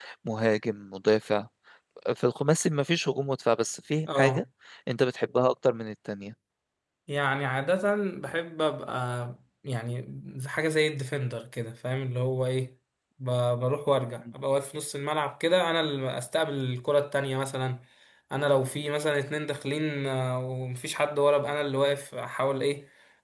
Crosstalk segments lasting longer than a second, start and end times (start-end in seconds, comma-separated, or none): none